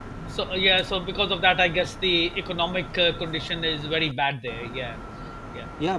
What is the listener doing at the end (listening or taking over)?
taking over